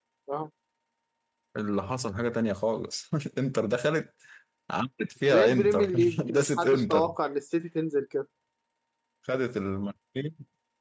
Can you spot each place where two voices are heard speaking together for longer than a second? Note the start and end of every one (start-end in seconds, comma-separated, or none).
5.2-7.1